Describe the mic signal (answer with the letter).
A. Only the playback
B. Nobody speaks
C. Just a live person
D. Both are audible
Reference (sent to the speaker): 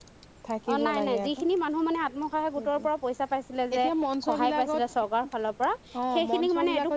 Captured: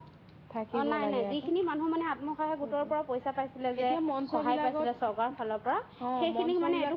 A